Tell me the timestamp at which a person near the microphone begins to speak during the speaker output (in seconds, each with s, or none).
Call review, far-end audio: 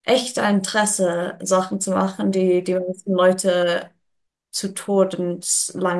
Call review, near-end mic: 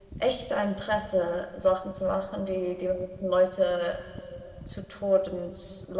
none